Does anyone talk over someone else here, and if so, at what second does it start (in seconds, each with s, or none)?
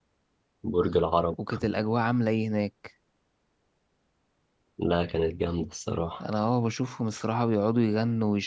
none